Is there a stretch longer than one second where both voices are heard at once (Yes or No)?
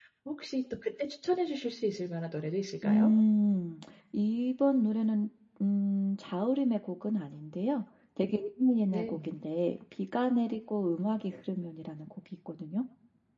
No